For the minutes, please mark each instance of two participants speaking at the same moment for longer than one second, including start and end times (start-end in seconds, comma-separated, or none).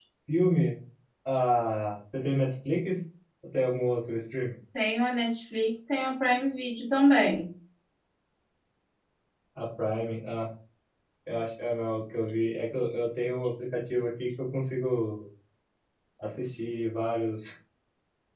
none